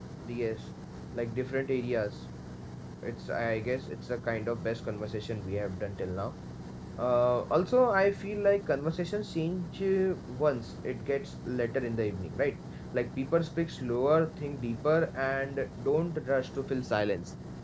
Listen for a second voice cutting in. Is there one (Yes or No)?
No